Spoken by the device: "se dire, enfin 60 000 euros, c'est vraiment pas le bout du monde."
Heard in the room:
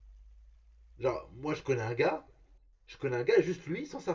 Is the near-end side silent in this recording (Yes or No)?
No